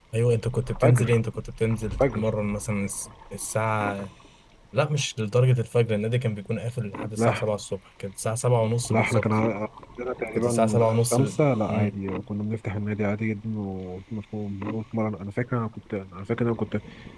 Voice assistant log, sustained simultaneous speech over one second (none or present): present